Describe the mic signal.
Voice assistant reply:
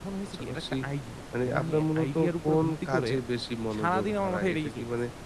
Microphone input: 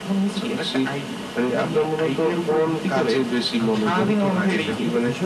both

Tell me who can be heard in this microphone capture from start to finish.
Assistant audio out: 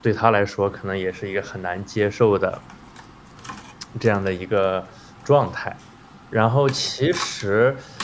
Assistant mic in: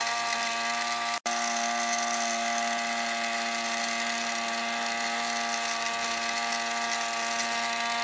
neither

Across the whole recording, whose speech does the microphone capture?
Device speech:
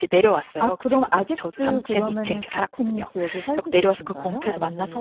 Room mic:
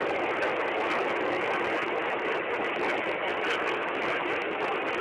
neither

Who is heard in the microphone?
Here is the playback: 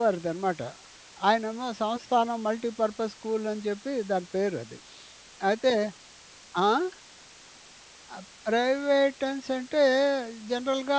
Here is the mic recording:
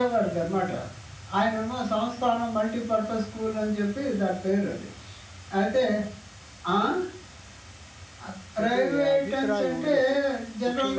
both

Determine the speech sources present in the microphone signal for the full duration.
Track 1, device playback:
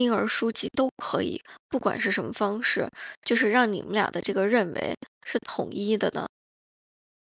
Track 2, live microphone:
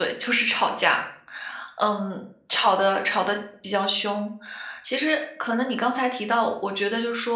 user only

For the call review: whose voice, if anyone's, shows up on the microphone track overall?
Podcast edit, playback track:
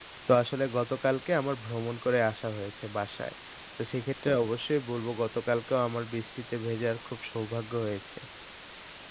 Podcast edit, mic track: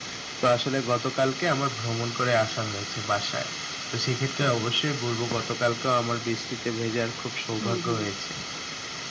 both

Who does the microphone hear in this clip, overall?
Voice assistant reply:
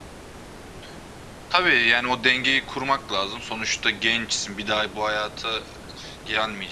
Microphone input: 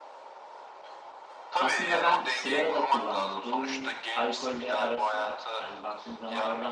both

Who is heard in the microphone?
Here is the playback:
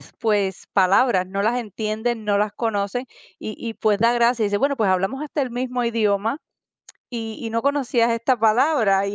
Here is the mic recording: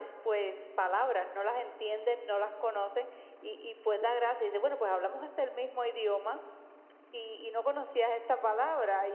echo only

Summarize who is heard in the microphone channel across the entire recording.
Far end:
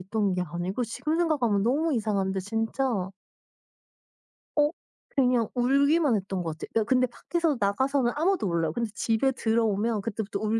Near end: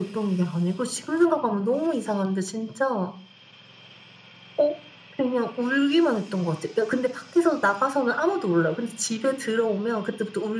echo only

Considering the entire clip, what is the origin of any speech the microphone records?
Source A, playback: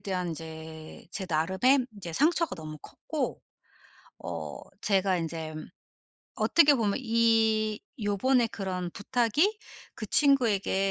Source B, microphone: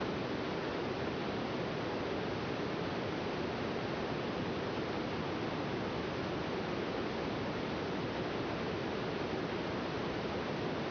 neither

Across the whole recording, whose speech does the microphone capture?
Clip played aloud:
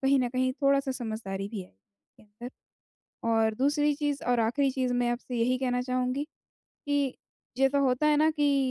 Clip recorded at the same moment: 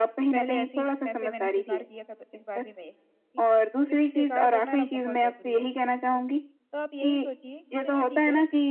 both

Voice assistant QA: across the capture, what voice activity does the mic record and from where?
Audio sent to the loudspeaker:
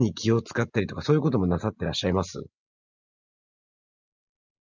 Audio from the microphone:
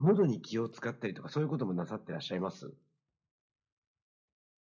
echo only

